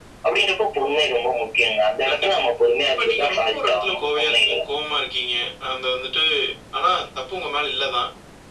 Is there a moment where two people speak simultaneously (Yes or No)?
Yes